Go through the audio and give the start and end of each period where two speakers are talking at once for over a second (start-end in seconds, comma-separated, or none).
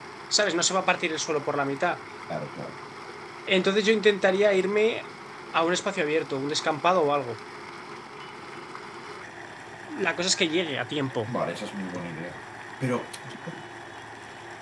none